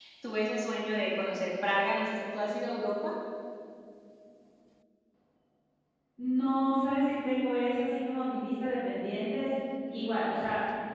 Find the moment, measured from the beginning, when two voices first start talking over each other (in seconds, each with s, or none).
none